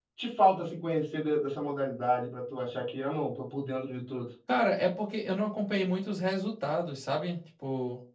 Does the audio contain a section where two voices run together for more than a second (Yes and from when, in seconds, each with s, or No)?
No